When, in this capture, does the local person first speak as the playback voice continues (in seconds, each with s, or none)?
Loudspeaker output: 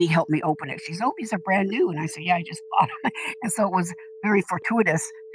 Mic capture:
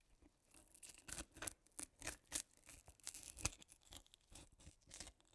none